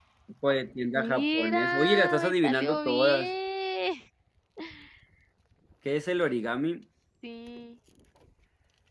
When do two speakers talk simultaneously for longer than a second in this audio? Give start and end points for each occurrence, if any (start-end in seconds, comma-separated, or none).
0.9-3.3